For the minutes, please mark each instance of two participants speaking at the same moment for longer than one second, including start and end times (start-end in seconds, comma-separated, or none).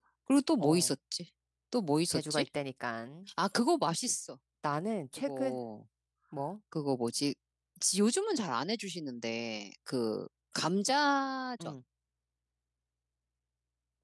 none